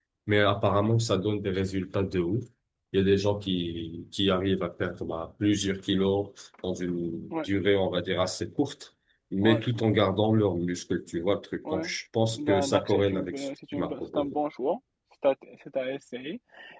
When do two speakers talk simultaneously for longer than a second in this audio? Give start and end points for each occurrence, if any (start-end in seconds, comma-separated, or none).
12.3-14.3